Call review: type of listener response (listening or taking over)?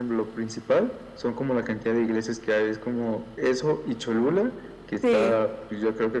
listening